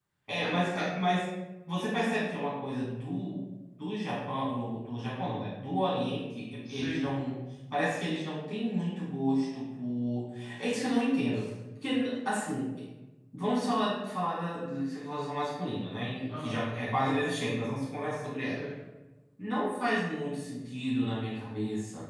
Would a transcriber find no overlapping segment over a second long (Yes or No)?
Yes